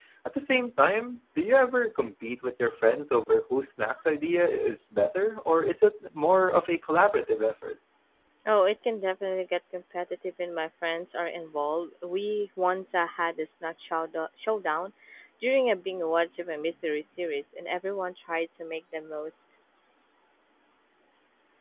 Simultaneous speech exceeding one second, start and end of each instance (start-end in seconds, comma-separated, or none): none